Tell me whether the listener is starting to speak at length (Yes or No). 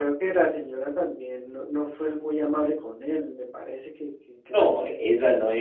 Yes